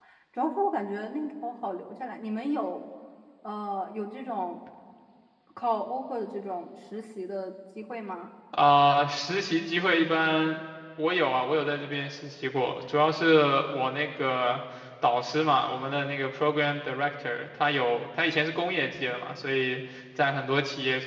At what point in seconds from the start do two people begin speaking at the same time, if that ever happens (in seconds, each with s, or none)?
none